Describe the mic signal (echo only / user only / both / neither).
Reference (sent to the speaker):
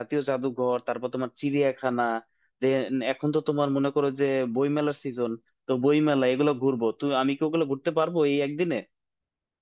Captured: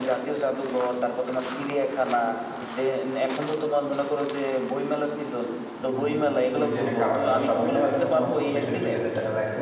both